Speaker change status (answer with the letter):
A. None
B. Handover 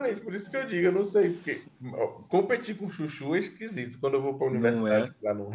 A